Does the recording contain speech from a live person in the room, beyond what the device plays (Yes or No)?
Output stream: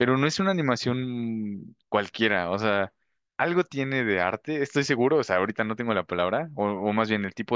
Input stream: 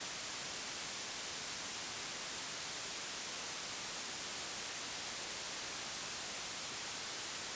No